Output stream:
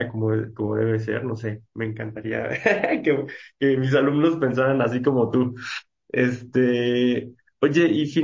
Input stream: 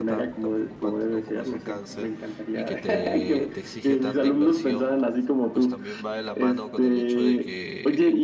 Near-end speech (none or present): present